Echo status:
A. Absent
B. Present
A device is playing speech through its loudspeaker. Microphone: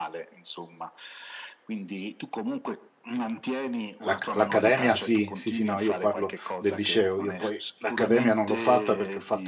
B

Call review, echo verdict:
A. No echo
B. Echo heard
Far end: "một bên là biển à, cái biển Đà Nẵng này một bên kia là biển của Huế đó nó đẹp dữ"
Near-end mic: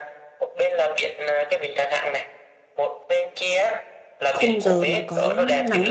B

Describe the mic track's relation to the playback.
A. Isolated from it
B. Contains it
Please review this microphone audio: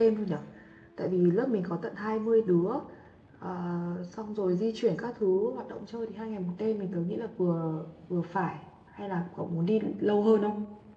A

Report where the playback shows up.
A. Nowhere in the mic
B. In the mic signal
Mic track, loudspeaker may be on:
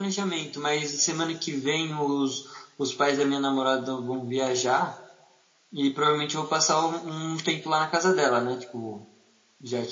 A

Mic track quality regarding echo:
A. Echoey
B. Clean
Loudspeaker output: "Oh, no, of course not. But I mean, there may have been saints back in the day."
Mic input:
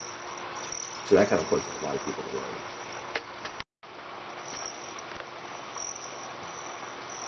B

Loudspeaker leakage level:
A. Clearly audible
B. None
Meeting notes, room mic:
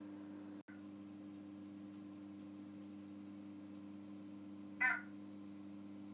B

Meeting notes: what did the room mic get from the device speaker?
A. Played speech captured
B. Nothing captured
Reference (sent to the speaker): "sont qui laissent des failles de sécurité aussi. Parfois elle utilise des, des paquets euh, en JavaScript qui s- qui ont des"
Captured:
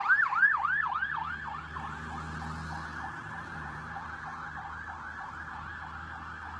B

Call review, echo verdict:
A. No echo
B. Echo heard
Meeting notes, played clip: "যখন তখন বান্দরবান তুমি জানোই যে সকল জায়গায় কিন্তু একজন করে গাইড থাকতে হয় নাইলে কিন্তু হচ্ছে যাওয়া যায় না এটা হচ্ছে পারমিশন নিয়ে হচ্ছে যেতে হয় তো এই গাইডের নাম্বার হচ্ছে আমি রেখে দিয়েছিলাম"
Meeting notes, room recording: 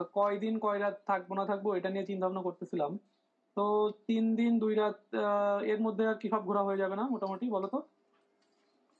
A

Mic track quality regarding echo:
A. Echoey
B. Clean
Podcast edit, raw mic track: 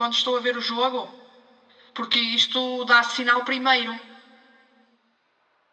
A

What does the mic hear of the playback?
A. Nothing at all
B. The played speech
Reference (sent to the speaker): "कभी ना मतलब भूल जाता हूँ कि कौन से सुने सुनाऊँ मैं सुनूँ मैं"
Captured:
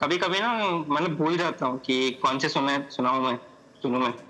B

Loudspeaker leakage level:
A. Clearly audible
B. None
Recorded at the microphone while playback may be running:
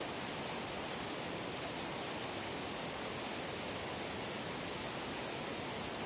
B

